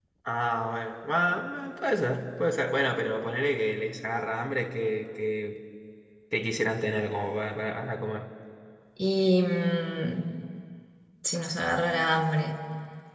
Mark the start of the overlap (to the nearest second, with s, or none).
none